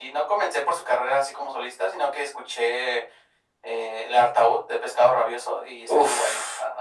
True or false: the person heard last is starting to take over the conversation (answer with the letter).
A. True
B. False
A